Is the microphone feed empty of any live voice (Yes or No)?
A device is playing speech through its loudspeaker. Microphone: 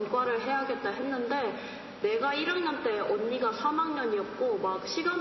Yes